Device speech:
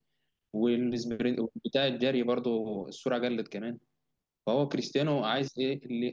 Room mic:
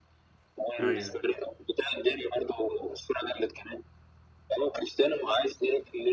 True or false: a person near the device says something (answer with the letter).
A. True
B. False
A